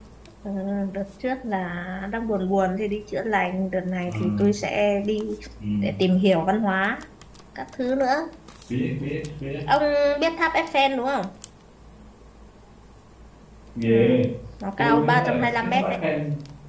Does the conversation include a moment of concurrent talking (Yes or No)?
Yes